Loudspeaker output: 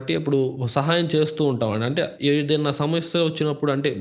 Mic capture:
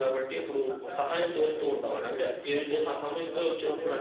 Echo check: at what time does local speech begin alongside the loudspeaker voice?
0.7 s

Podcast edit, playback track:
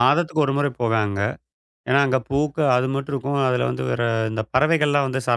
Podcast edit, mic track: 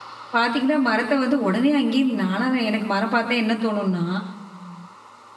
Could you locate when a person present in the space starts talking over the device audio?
0.3 s

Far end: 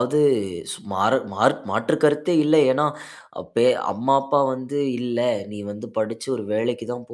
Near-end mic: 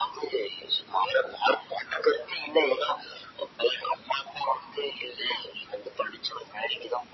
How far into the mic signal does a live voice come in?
none

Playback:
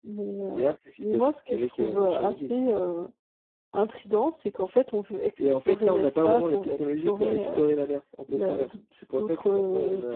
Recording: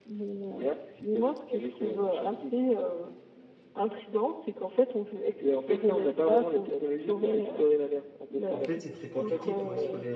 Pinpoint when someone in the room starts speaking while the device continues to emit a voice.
8.5 s

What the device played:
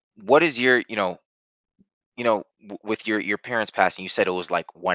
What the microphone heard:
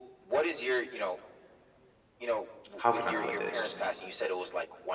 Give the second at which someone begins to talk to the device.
2.7 s

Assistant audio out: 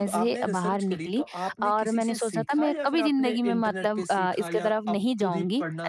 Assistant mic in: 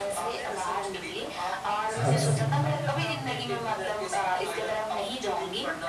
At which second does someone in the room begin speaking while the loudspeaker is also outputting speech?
1.9 s

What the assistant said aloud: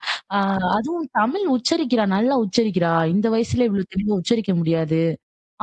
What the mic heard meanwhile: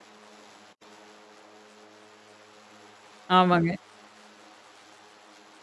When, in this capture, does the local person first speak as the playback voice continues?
3.4 s

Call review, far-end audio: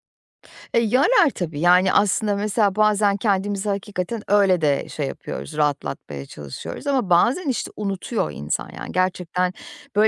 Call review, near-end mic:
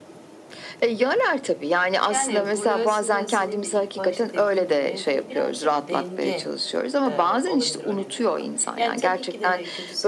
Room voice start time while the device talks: 2.1 s

